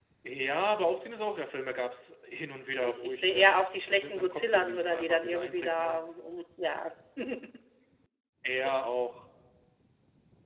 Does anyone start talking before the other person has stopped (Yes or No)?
Yes